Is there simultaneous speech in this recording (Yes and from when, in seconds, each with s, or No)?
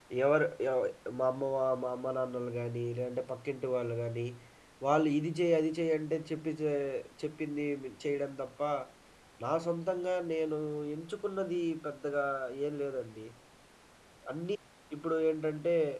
No